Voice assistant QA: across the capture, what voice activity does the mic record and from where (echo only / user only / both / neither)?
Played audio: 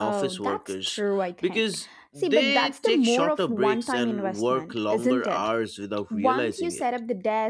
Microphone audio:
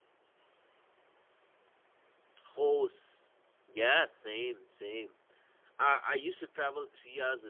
user only